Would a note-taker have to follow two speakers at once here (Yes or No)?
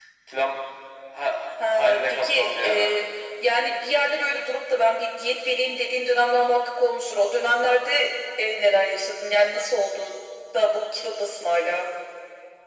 Yes